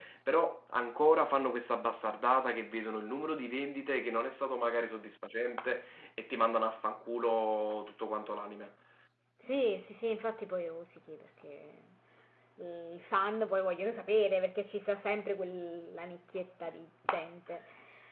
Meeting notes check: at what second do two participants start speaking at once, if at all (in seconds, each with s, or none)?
none